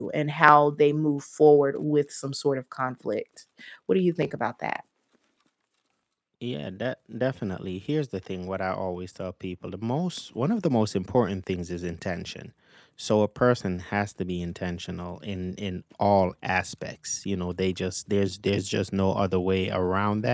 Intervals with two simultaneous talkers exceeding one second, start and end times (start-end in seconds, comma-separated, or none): none